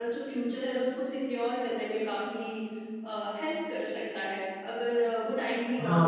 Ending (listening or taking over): taking over